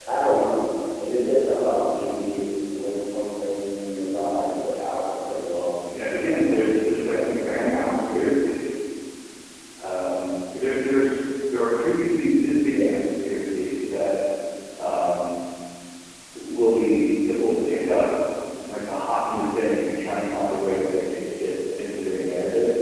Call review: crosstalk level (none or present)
present